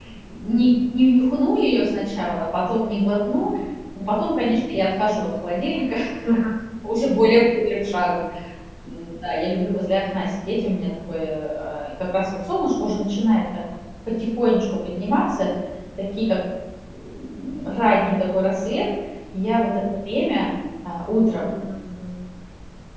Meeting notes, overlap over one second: none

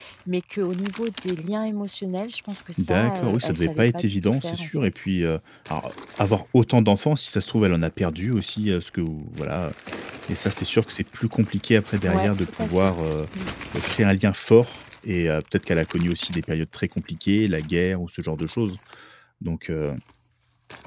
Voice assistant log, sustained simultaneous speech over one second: present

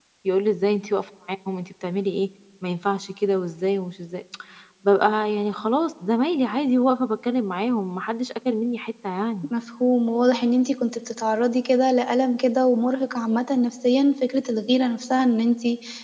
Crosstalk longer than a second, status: none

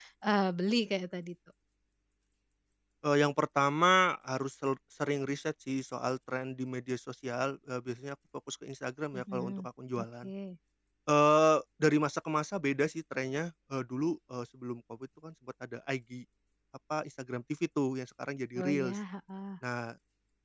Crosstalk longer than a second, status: none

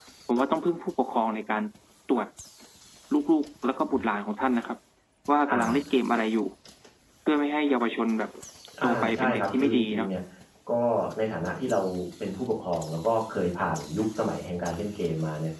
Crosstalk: present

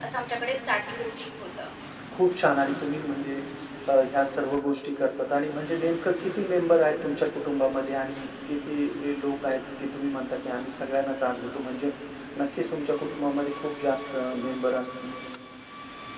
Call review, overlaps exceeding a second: none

